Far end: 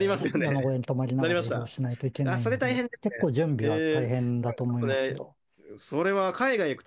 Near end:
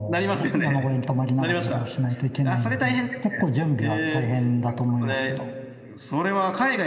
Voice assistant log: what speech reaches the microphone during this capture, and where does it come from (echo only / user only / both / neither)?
echo only